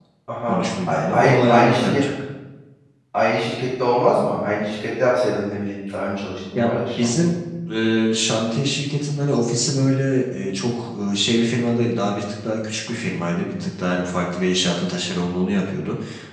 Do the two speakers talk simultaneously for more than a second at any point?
Yes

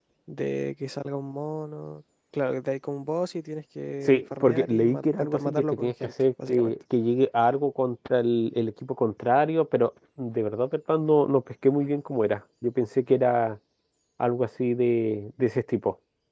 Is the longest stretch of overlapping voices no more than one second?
No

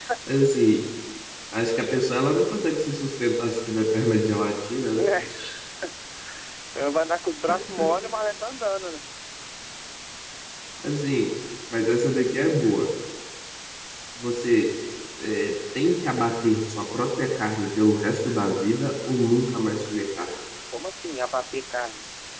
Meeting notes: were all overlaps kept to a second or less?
Yes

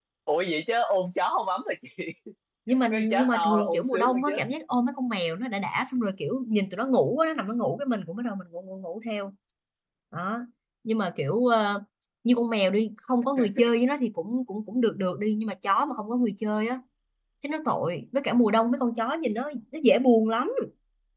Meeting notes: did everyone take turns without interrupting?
No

